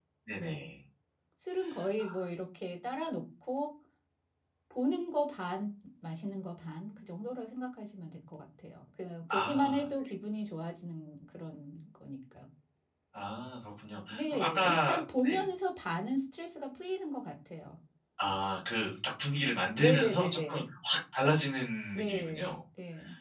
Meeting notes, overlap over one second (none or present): present